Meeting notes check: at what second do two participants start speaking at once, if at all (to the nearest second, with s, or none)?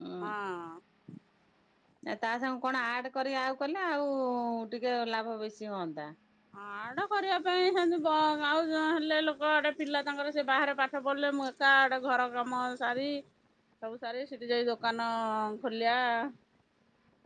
none